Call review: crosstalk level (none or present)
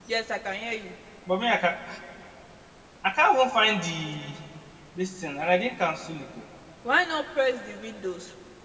none